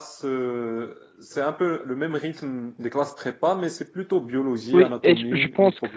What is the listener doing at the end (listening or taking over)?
taking over